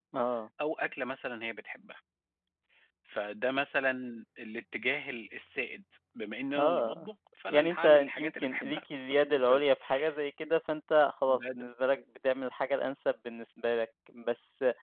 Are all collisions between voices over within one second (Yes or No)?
No